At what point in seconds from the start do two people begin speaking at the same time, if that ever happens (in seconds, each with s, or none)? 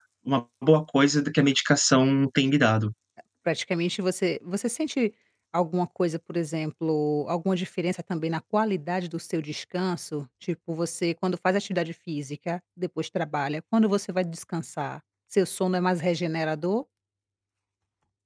none